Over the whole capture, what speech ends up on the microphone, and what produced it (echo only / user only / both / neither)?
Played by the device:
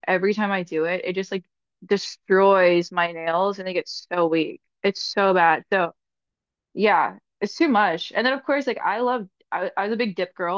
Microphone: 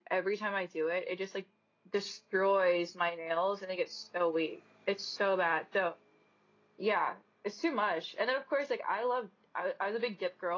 echo only